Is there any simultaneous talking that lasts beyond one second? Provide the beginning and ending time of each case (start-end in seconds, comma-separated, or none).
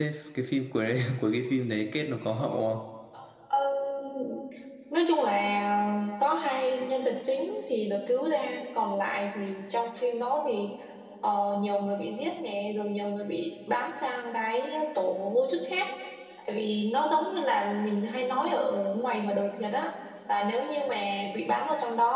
none